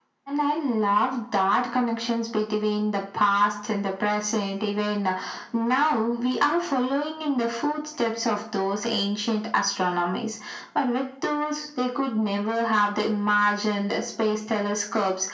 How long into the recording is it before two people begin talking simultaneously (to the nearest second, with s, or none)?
none